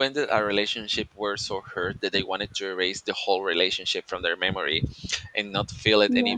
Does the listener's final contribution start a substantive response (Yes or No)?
No